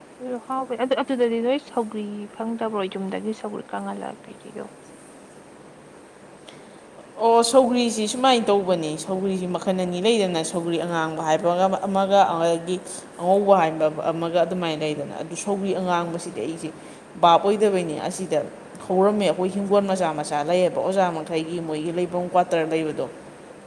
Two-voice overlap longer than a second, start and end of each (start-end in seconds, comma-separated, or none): none